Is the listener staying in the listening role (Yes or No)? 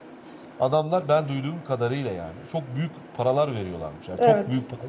Yes